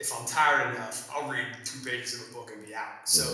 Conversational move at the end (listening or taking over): listening